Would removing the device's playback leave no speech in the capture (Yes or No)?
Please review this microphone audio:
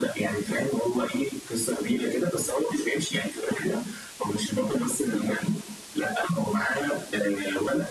Yes